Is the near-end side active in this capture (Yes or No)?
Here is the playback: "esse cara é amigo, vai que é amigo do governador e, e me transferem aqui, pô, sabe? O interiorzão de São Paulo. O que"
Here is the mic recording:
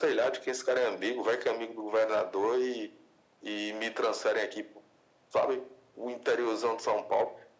No